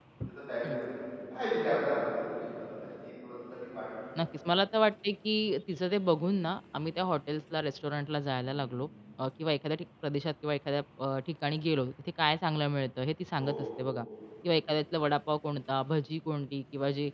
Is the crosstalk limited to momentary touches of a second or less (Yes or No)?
Yes